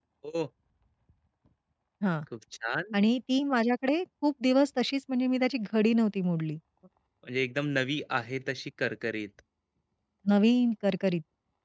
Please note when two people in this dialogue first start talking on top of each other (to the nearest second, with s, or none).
none